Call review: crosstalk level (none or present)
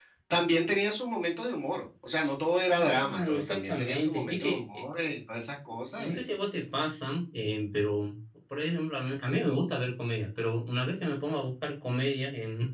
present